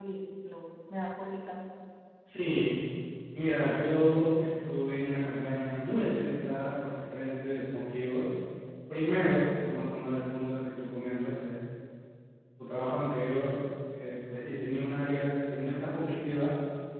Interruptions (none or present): none